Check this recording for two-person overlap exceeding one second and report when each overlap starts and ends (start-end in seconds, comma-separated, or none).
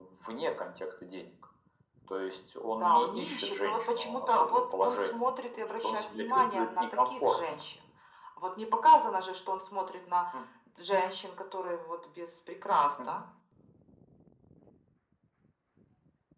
2.7-7.6